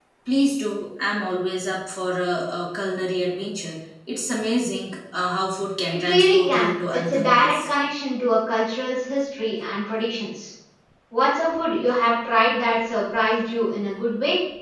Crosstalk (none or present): present